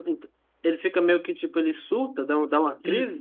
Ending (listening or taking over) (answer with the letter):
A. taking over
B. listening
A